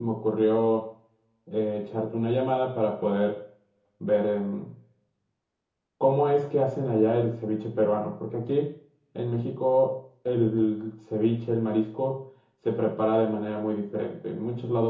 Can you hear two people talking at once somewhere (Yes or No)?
No